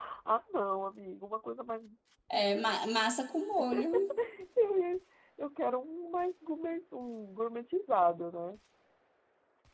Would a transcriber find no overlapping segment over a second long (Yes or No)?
Yes